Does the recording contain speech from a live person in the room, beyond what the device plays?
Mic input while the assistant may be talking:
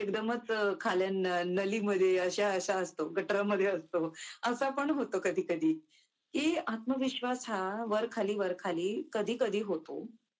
No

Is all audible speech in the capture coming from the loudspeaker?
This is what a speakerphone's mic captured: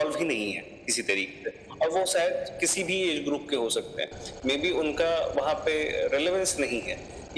Yes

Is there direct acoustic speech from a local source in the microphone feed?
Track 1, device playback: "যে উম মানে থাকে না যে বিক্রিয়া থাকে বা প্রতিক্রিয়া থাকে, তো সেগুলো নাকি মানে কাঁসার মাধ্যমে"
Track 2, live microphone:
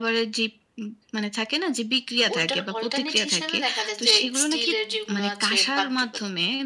Yes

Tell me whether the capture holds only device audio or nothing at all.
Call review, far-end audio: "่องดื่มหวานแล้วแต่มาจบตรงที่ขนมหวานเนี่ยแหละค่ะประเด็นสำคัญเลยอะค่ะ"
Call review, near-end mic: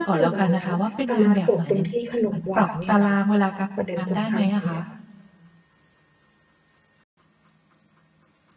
No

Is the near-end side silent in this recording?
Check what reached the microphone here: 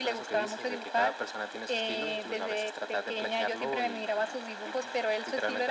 Yes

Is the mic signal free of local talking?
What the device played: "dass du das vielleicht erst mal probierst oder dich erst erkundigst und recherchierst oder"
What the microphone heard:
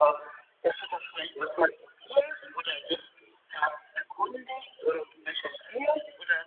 Yes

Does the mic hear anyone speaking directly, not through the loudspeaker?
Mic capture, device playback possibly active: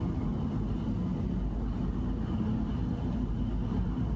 No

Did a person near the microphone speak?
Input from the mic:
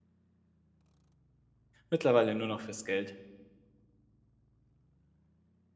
Yes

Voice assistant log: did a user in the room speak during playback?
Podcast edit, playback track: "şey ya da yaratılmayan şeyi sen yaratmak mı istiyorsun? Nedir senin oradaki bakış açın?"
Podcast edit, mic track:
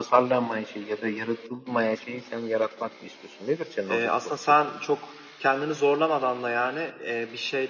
Yes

